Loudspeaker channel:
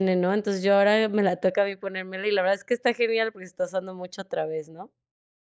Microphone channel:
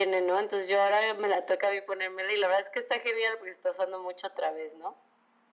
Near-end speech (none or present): none